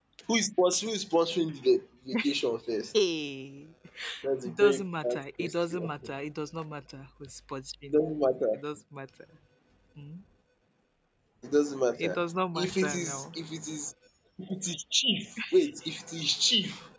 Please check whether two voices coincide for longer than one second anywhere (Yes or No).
Yes